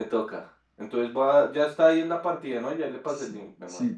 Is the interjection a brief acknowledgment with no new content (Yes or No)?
No